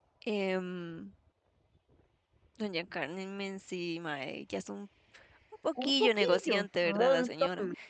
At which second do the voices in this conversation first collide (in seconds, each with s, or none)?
5.8 s